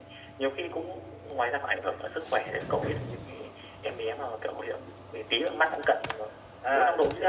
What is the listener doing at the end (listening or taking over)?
taking over